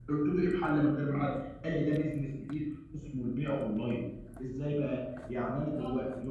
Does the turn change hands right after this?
No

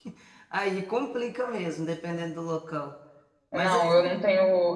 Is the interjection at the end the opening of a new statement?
Yes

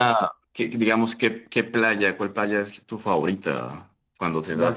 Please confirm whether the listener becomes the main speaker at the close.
Yes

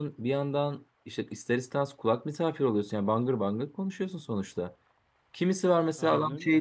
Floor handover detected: No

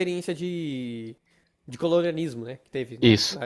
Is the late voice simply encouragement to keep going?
No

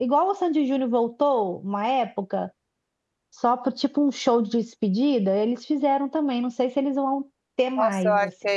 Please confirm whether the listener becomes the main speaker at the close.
Yes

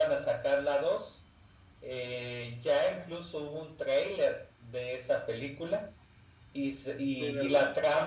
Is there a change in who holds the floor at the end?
No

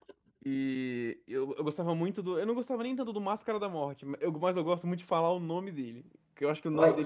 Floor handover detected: No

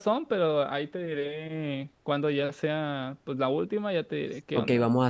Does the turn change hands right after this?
Yes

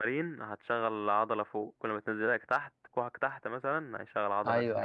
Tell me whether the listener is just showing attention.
No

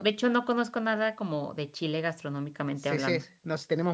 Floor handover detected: Yes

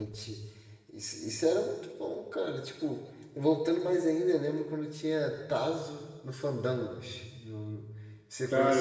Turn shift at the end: Yes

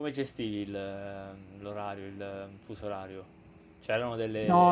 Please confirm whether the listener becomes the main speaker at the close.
Yes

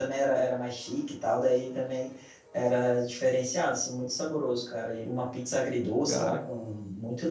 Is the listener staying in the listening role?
Yes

